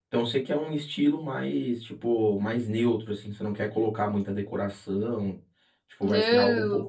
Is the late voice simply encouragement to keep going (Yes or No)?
No